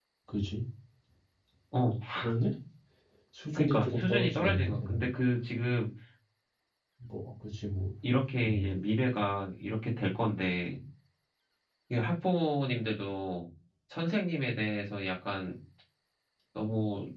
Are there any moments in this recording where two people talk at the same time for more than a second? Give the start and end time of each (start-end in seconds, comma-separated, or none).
3.5-5.0